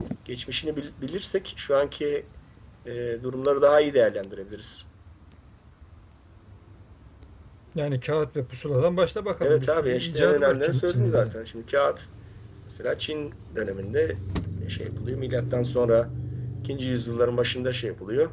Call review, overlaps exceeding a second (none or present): present